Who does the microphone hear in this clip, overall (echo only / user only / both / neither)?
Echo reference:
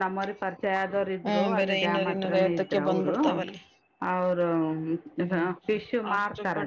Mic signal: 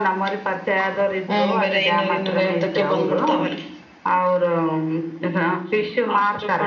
echo only